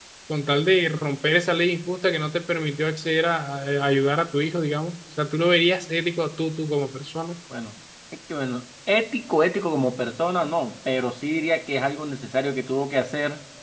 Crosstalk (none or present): none